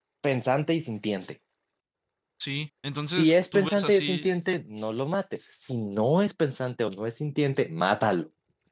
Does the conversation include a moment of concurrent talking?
Yes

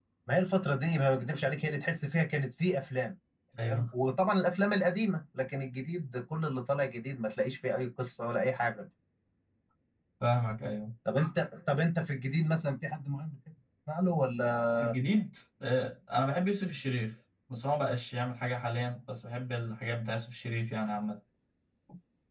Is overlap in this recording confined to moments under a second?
Yes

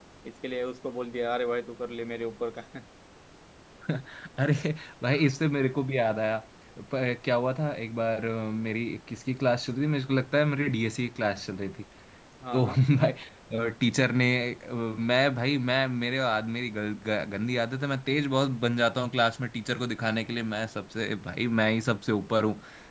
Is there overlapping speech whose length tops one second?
No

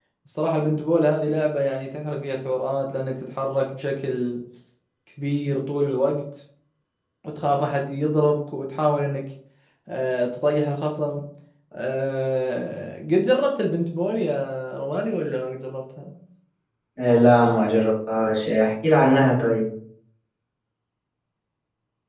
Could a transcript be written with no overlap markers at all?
Yes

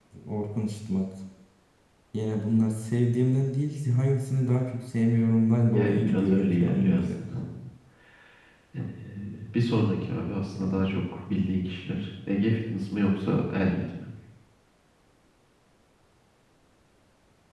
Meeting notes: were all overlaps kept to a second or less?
No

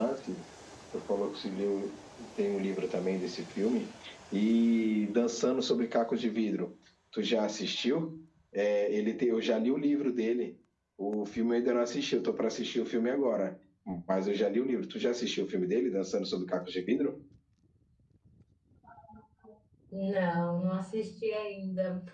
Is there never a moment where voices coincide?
Yes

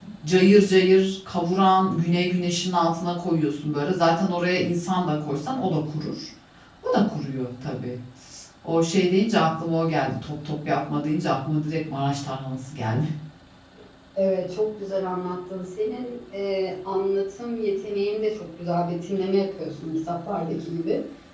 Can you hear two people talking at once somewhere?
No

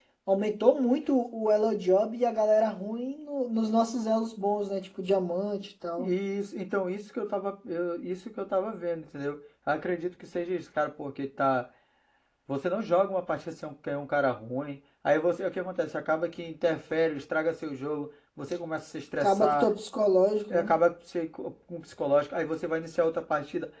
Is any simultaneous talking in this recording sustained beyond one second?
No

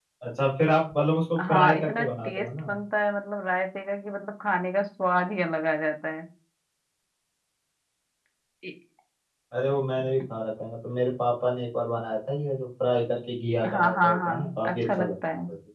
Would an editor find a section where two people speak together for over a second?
Yes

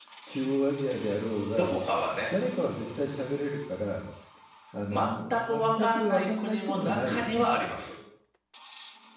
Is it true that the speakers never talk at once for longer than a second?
No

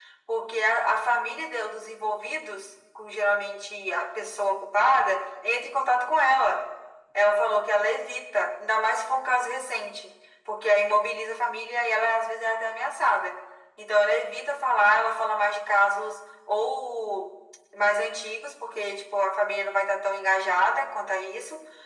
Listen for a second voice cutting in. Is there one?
No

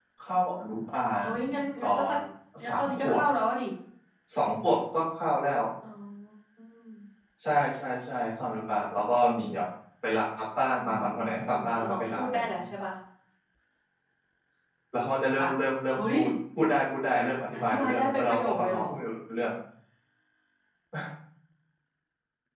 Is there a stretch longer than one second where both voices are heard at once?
Yes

